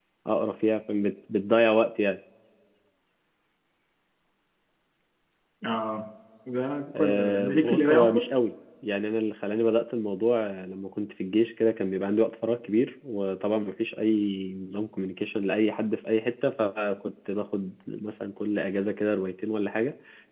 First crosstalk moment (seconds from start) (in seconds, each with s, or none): 7.0 s